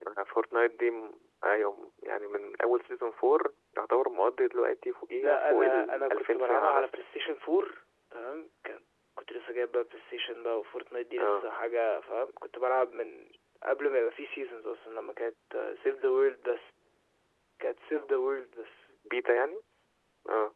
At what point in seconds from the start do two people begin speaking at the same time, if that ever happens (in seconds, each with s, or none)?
5.2 s